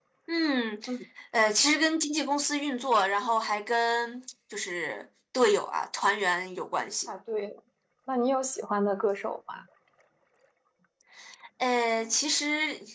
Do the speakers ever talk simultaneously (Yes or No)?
No